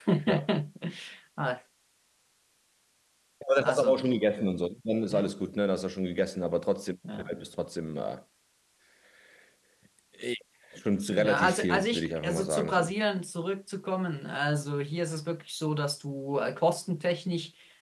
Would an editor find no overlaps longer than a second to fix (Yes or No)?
No